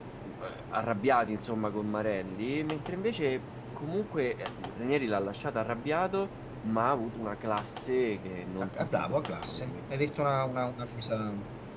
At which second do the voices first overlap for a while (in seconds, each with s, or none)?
8.6 s